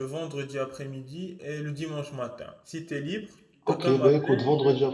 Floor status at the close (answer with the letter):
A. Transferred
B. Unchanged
A